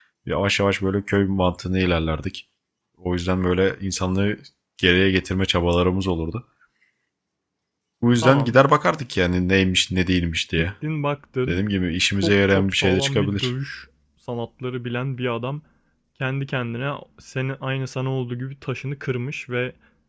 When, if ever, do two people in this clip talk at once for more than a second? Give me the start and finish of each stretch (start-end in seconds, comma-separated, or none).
12.2-13.5